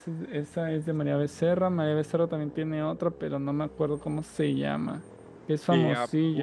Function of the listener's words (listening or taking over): taking over